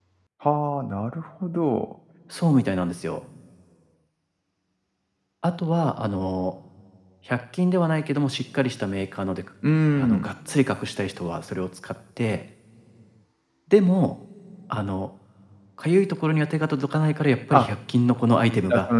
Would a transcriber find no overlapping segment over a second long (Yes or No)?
Yes